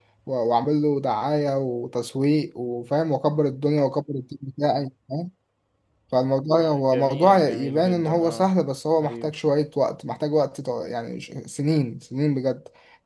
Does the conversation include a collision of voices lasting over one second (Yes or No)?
Yes